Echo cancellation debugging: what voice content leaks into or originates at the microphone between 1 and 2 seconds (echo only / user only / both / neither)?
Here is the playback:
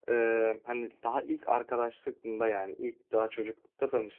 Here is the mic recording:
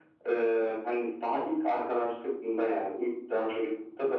echo only